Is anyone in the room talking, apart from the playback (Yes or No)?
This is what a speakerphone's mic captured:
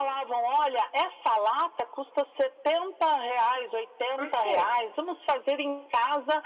Yes